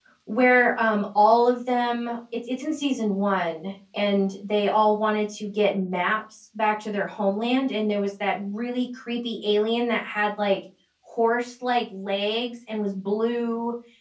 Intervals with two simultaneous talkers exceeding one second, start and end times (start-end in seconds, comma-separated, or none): none